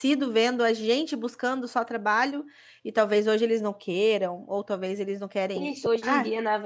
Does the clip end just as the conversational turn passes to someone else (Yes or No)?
Yes